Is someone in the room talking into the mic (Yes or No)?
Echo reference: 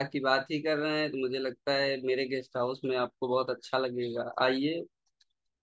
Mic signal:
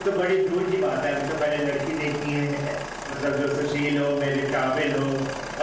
Yes